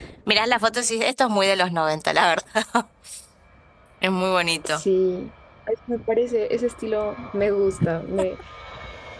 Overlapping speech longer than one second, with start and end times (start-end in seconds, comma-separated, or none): none